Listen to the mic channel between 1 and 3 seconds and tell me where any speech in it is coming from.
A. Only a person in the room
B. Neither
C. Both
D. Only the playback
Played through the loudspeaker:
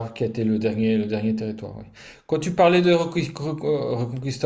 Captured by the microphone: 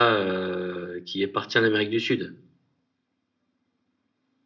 A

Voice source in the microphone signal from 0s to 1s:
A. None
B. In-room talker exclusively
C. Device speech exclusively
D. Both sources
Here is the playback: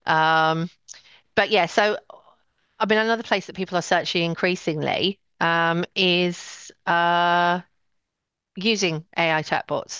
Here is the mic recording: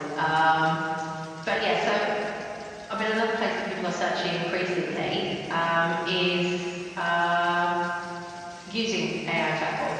C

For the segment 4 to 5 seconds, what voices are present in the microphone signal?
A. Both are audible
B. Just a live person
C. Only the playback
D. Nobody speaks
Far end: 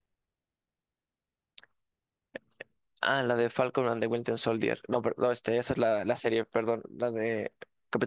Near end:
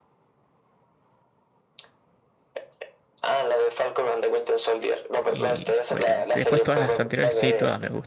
C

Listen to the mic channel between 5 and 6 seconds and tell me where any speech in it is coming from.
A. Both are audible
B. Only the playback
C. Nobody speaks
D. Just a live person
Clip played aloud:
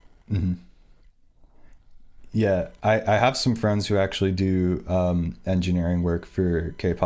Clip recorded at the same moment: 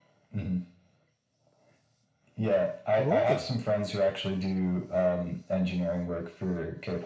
B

